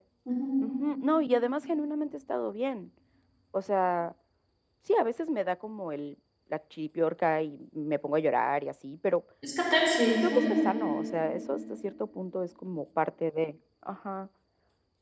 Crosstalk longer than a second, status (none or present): none